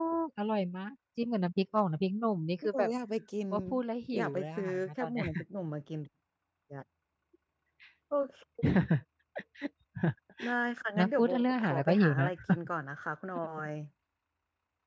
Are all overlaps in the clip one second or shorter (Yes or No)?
No